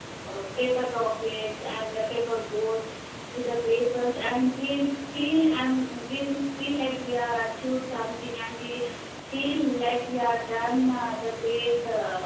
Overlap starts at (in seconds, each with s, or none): none